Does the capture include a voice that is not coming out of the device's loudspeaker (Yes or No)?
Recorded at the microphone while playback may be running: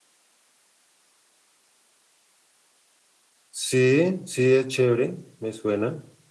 Yes